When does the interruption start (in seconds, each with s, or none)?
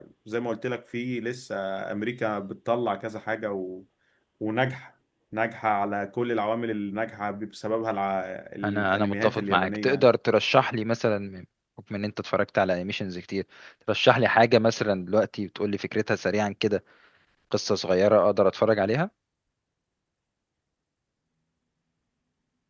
8.6 s